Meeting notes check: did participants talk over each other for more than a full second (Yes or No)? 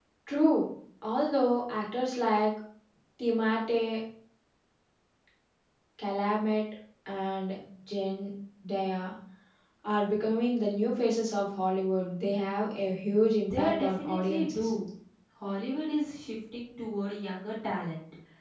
Yes